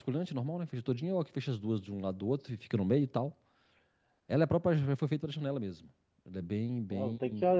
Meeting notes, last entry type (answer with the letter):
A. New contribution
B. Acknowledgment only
A